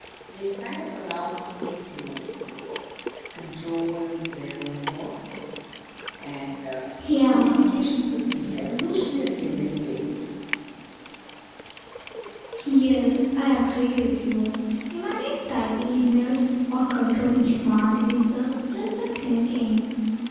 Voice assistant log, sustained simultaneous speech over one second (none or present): none